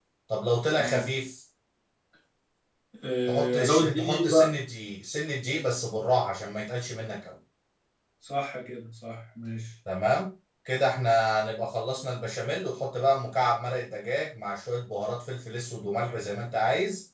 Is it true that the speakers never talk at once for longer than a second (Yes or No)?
No